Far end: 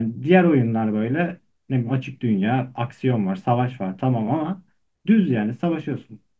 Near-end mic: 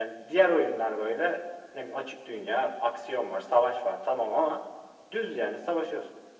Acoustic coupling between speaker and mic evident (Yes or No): Yes